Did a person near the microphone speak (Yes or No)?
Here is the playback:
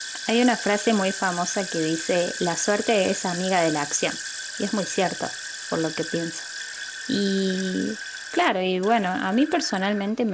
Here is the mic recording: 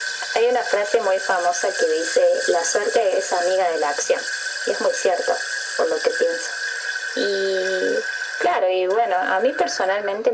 No